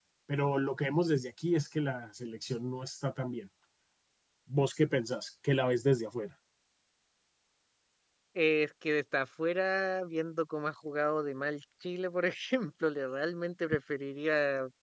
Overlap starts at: none

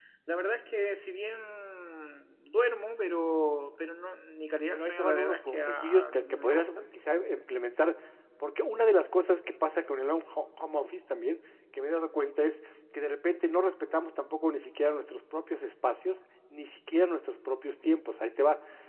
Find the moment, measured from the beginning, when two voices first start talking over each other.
4.7 s

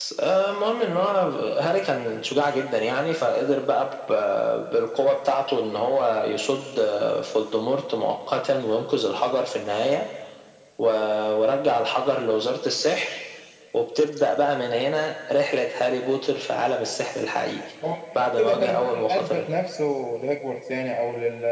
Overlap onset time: 18.2 s

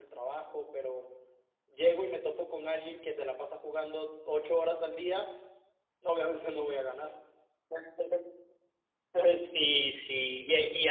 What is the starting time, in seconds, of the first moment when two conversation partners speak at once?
none

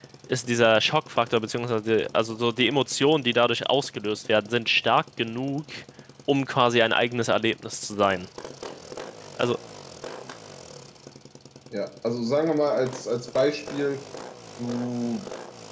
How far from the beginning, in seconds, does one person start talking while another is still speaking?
none

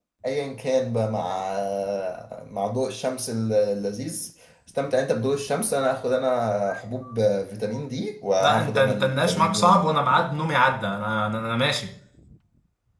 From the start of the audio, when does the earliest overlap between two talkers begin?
8.4 s

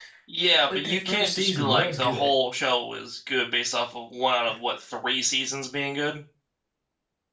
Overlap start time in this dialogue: 0.8 s

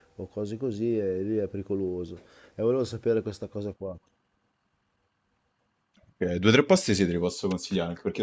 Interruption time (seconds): none

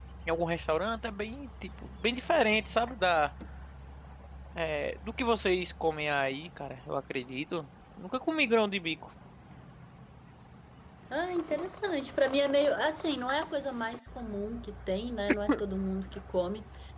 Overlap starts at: none

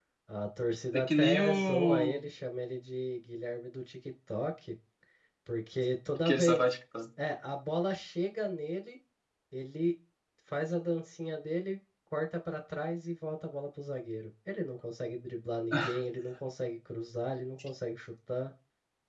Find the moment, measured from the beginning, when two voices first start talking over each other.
0.9 s

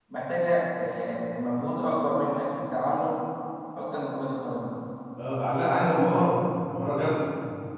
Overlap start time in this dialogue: none

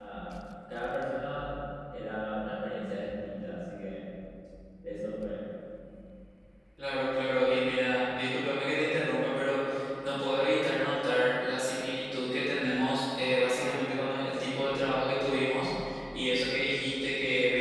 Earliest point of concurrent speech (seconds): none

